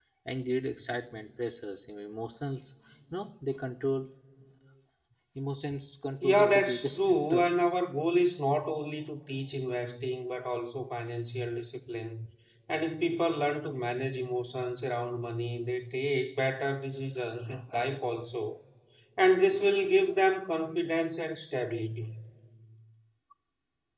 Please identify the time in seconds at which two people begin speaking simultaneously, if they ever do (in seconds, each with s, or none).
6.2 s